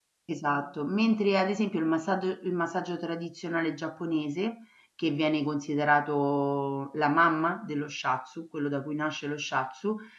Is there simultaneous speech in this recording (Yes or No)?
No